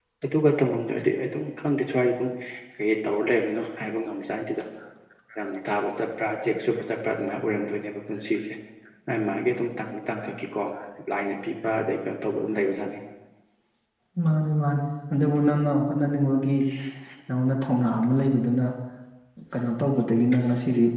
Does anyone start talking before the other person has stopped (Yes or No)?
No